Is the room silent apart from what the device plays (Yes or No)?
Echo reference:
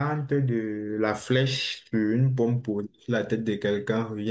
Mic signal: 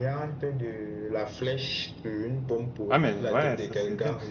No